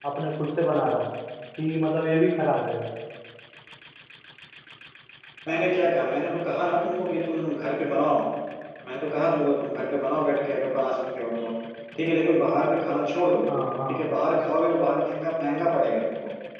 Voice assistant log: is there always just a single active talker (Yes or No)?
Yes